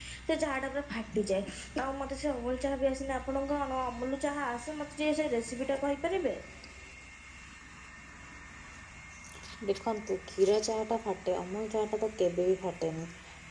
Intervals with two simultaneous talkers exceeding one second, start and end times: none

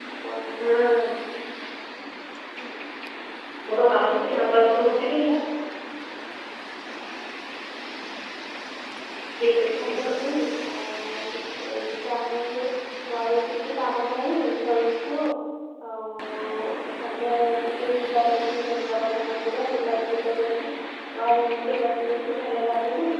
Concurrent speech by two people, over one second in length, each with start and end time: 3.8-5.2

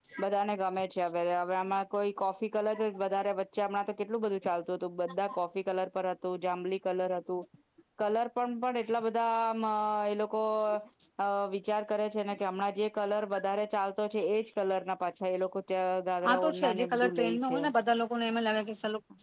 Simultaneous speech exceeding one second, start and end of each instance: 16.3-17.6

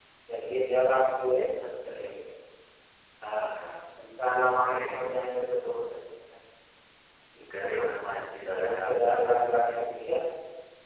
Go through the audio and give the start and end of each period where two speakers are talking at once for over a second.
8.5-9.7

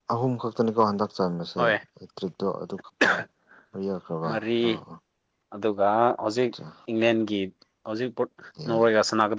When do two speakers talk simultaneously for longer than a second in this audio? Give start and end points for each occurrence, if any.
none

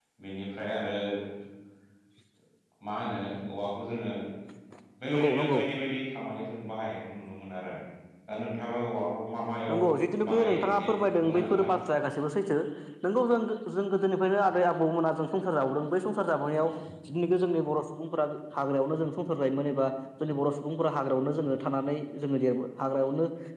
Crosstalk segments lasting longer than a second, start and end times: 10.3-11.7

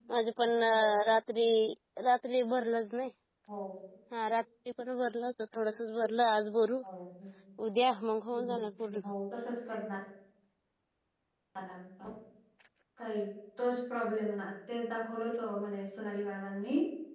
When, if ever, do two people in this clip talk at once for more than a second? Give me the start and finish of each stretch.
none

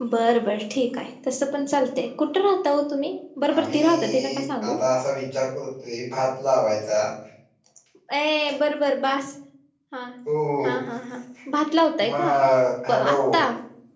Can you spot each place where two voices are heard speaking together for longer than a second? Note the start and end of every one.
3.6-4.8

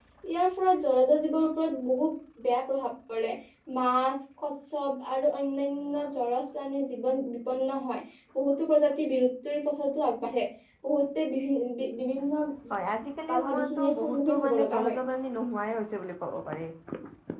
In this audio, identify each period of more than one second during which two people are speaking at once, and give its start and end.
13.3-15.0

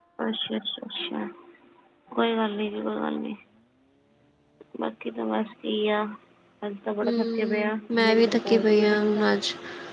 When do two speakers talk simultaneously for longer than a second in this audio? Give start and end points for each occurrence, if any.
7.0-9.2

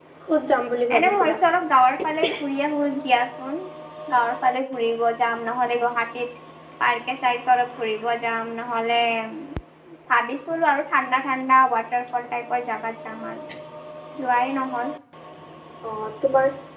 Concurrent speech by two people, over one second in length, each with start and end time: none

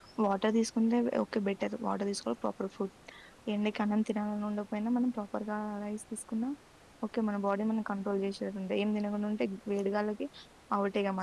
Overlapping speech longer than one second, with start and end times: none

